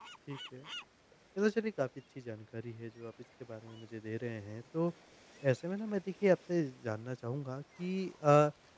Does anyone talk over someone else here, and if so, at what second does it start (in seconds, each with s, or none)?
none